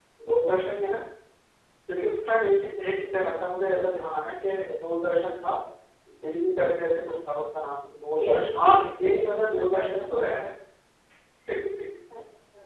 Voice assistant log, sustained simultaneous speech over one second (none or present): present